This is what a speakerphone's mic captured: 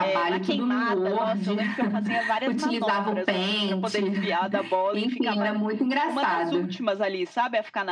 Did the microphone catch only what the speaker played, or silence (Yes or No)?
Yes